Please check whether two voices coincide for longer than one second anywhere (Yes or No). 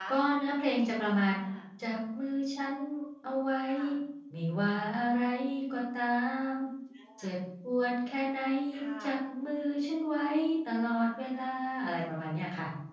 No